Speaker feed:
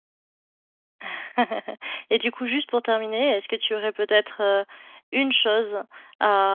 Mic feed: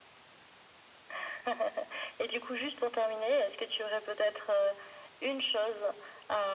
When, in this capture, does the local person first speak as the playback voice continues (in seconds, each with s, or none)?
none